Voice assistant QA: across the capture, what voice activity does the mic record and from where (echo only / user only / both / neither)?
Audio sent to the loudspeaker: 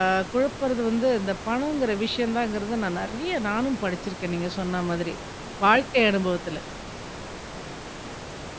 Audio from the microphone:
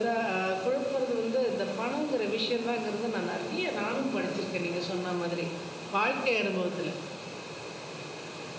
echo only